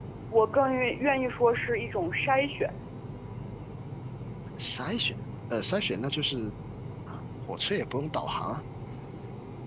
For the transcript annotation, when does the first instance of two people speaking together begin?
none

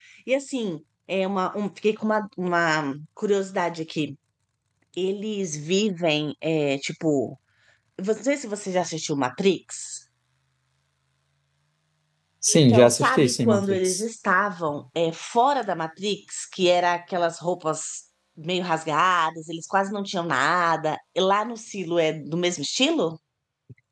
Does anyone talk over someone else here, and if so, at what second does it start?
12 s

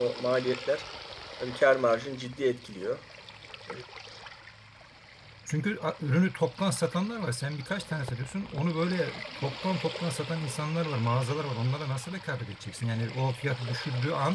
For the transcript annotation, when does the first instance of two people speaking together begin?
none

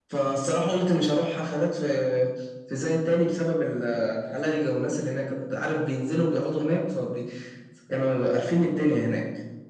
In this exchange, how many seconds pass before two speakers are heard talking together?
none

